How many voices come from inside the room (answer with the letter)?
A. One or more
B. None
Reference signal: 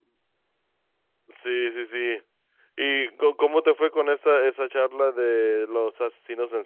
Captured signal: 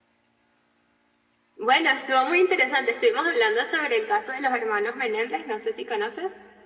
A